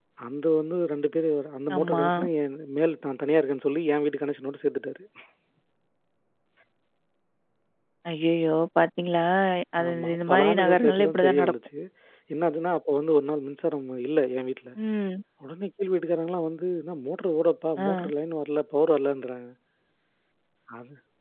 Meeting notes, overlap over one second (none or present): present